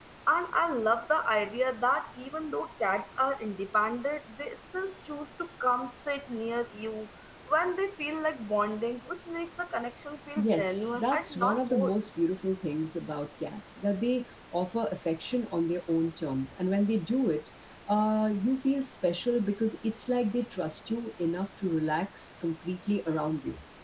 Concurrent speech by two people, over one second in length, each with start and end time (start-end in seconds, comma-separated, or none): 10.4-11.9